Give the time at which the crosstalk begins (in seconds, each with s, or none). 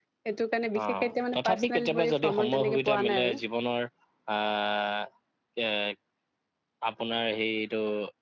0.8 s